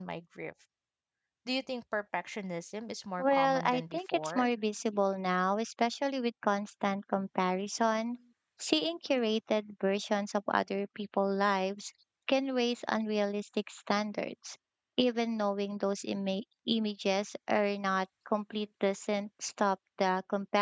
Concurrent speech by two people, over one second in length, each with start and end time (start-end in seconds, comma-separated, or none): 3.2-4.5